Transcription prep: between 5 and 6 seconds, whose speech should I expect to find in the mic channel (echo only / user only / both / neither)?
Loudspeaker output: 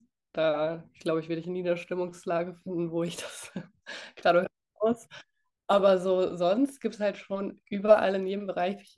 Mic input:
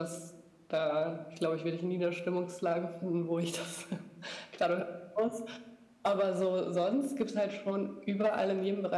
echo only